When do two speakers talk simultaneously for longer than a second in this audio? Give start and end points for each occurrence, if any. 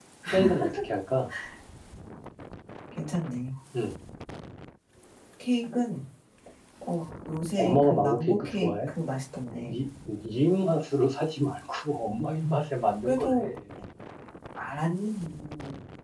7.6-8.9

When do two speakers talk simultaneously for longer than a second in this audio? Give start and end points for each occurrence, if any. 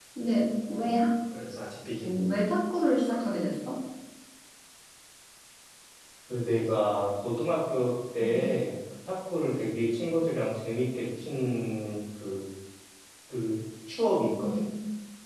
none

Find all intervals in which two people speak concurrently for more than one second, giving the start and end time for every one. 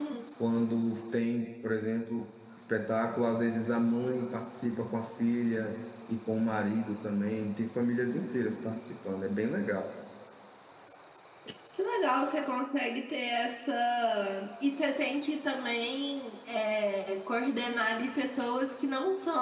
none

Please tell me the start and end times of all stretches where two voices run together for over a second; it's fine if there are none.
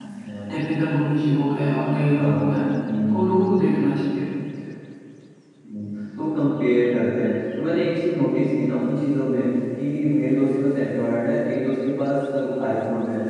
none

